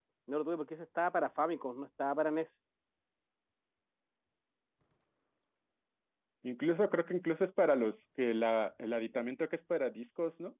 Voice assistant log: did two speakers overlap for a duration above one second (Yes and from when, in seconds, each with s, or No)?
No